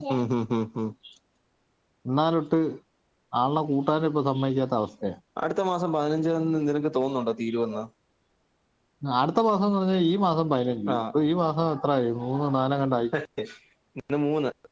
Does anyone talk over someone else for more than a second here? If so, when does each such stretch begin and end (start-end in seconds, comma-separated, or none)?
none